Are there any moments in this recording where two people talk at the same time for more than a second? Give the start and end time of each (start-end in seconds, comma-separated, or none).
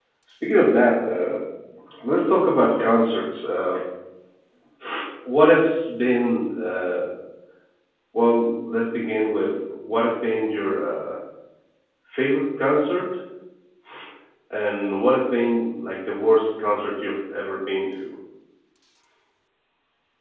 none